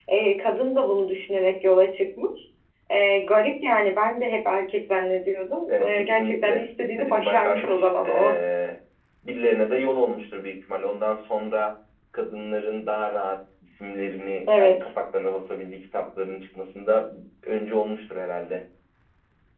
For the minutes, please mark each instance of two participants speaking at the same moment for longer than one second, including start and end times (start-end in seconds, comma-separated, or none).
5.7-8.4